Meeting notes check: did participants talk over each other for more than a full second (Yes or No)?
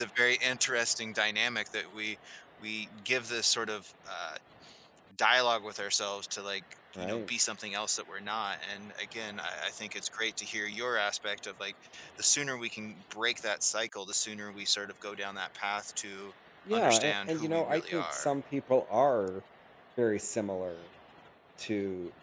Yes